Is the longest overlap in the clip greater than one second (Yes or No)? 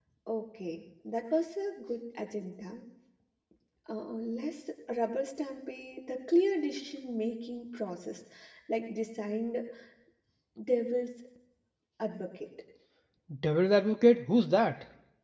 No